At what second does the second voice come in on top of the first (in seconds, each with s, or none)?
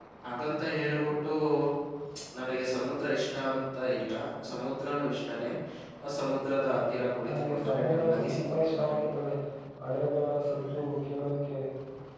7.2 s